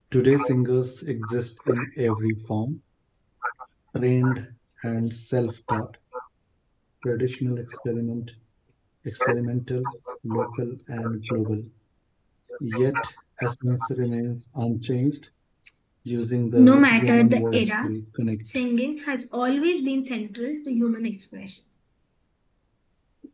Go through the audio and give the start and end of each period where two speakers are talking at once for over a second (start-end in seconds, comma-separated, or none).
16.6-17.9